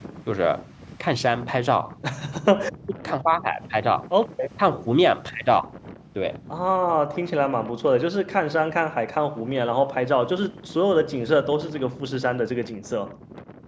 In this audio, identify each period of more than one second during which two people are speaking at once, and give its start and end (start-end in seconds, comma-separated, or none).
none